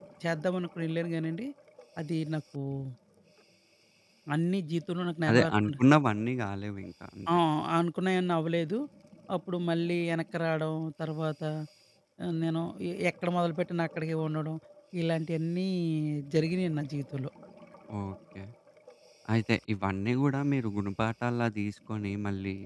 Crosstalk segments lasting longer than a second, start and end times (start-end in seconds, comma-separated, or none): none